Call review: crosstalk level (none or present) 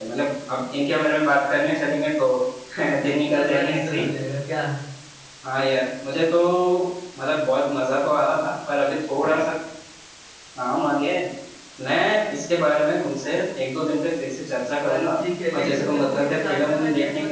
present